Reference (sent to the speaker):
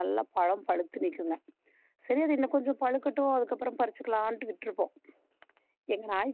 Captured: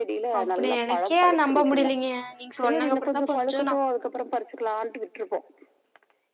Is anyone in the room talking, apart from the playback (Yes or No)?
Yes